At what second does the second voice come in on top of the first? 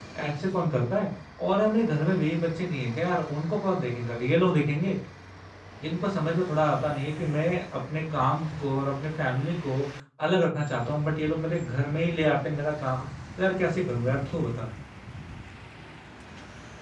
none

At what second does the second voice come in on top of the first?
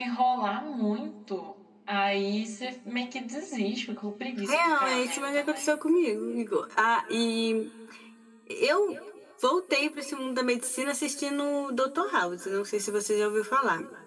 4.5 s

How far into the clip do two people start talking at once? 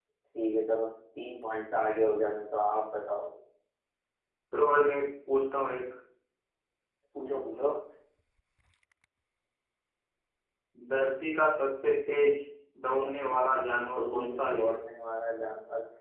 12.9 s

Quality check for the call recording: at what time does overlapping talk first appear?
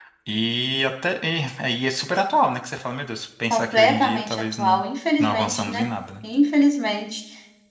3.5 s

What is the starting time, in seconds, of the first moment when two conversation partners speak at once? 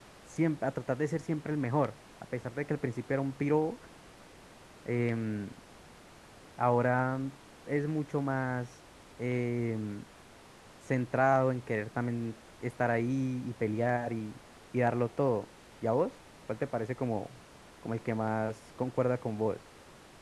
none

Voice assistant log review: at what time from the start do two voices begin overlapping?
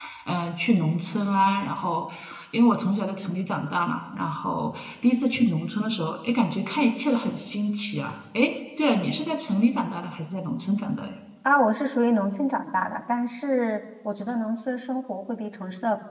none

